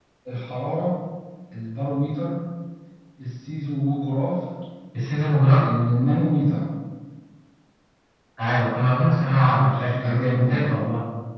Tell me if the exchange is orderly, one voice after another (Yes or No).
No